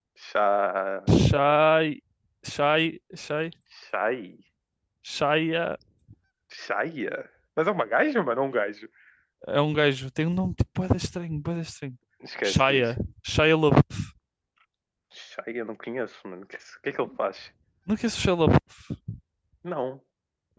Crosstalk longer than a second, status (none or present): none